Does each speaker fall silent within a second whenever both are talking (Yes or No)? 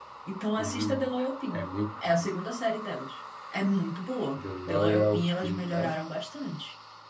No